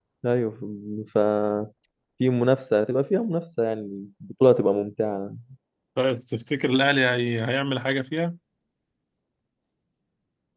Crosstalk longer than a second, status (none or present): none